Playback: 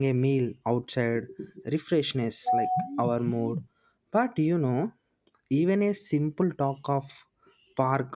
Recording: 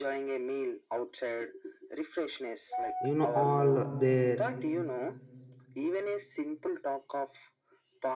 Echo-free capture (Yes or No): No